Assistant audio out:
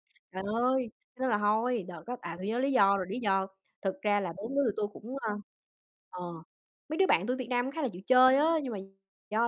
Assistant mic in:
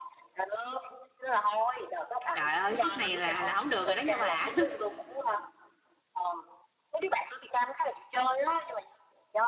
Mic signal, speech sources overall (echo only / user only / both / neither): both